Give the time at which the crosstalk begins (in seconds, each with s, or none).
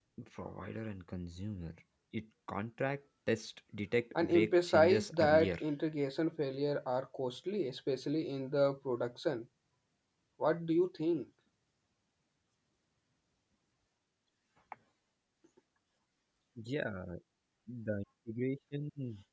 4.1 s